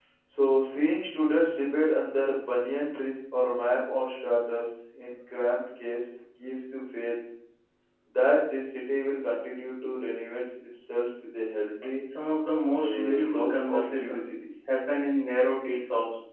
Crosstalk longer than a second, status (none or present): present